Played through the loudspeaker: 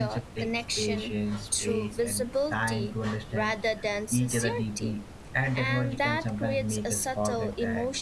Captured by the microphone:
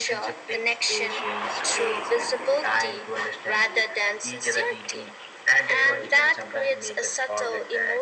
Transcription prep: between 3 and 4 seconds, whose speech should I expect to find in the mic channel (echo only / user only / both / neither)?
echo only